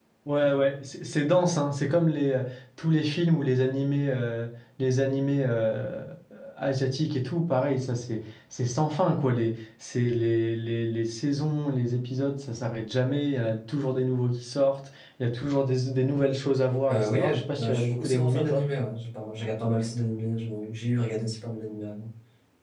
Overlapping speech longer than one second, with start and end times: 16.9-18.6

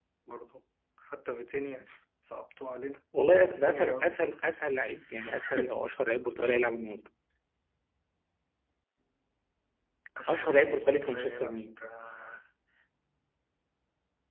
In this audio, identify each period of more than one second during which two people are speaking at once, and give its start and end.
3.3-4.5, 10.3-11.8

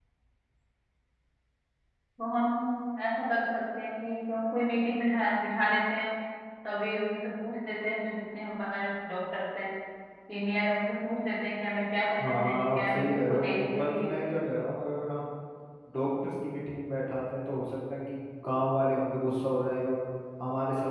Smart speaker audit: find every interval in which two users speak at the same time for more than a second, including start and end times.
12.2-14.1

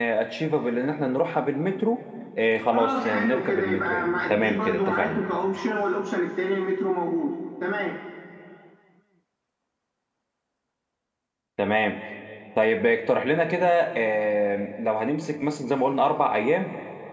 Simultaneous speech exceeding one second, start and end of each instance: 2.7-5.2

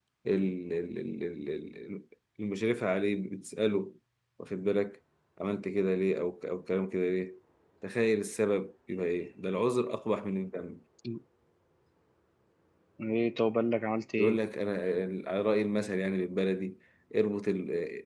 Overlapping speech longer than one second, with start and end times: none

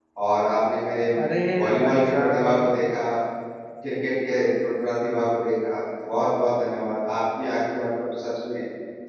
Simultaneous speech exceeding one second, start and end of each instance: 1.6-2.8

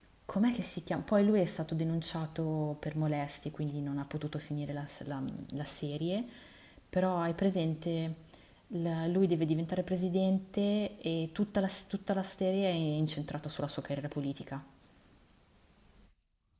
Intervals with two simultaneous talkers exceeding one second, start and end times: none

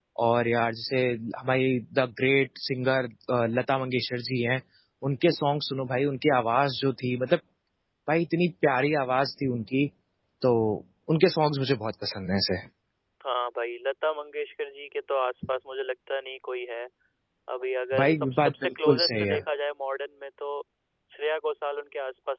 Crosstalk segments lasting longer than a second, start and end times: 18.0-19.4

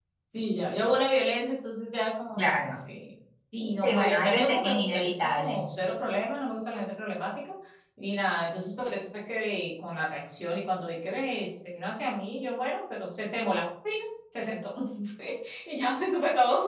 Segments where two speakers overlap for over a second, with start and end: 3.8-5.6

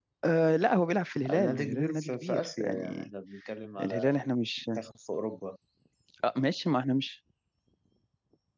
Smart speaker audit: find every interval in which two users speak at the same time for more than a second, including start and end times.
1.3-3.1

